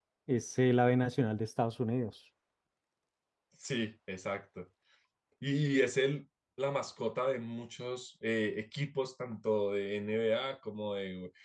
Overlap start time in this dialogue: none

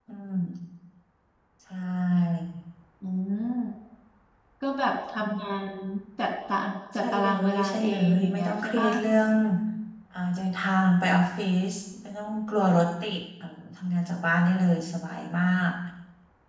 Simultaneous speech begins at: 7.0 s

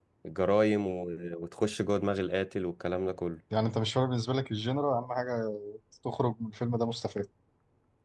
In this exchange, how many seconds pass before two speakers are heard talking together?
none

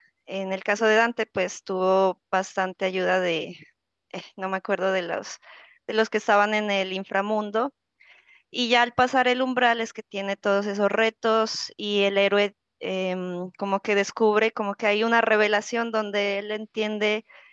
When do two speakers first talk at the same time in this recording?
none

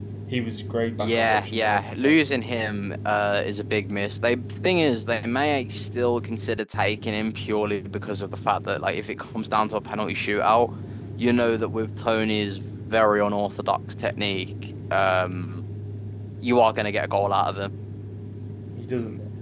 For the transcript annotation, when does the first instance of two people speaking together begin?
1.0 s

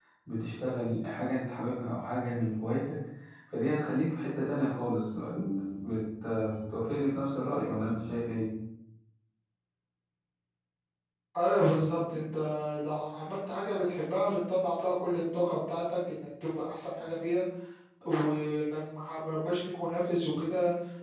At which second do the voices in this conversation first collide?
none

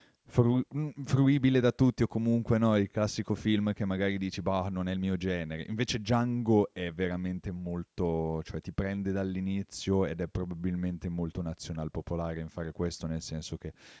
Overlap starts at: none

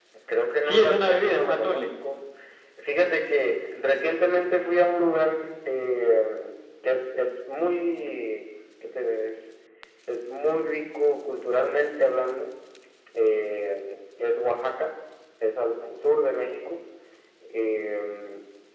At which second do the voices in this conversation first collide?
0.6 s

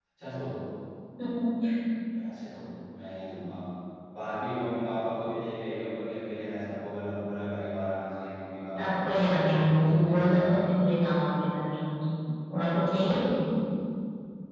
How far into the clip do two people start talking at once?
8.8 s

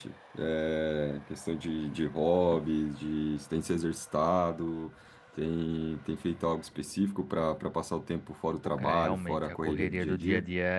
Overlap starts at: 8.8 s

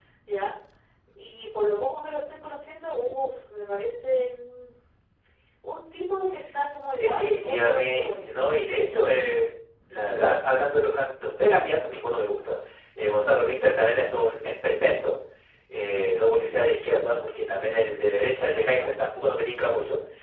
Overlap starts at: 7.0 s

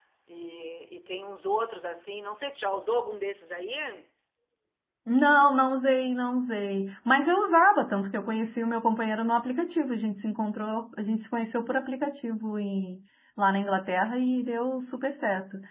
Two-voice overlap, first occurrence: none

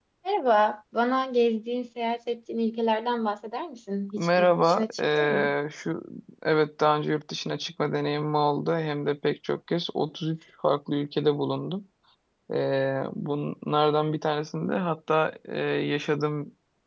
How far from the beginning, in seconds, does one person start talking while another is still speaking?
4.2 s

